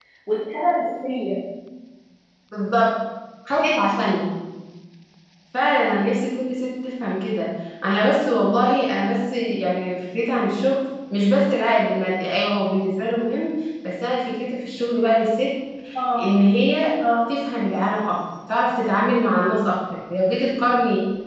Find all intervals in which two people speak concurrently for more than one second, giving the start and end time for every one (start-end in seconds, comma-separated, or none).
none